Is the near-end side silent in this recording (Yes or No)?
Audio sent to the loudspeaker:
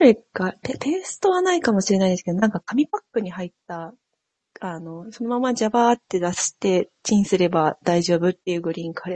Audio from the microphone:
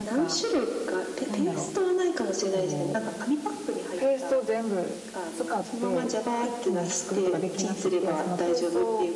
No